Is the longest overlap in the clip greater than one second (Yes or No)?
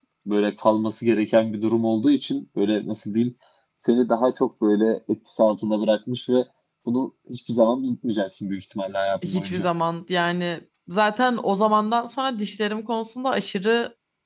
No